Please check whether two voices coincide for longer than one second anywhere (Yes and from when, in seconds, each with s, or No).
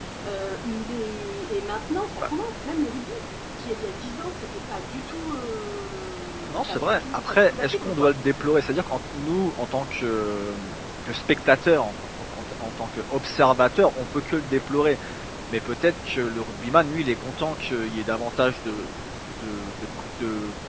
Yes, from 6.5 s